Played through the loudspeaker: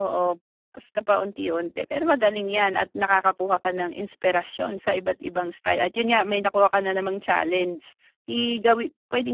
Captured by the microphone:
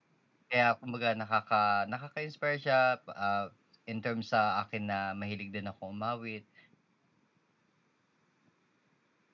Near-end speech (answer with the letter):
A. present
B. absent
A